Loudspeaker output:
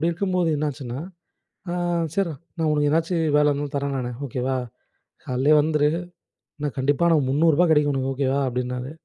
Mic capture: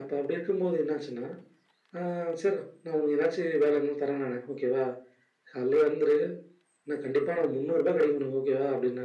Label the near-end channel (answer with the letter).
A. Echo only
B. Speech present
A